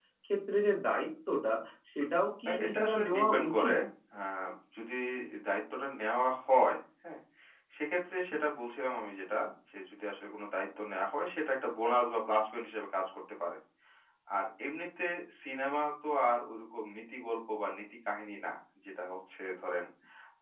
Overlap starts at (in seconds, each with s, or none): 2.5 s